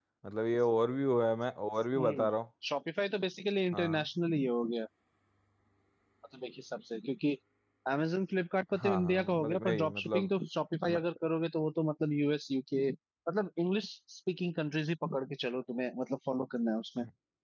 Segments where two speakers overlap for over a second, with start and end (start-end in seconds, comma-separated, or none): 8.7-10.3